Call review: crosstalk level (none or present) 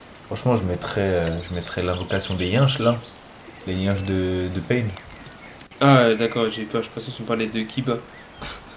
none